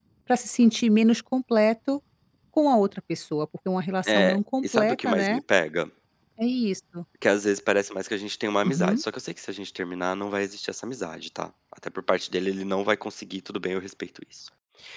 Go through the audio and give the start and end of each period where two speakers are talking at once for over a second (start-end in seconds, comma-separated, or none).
4.1-5.3